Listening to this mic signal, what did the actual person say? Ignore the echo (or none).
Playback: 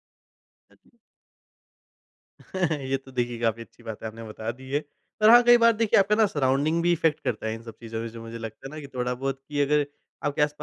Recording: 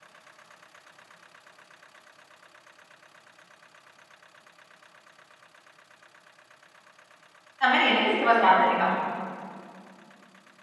समय नहीं है ना किसी के पास ध्यान देने का।